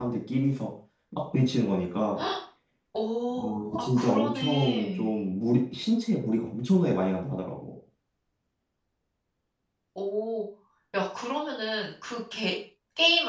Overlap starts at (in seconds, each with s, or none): 3.4 s